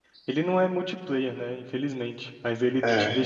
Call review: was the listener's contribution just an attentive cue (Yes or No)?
Yes